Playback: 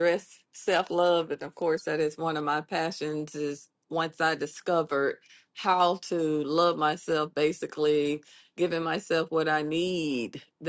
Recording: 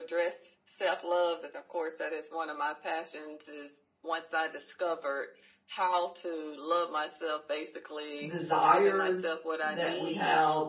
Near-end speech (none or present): present